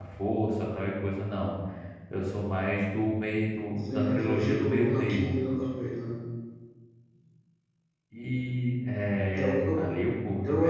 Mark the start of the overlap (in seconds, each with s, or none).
3.8 s